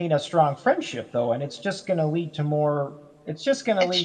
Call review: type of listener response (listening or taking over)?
listening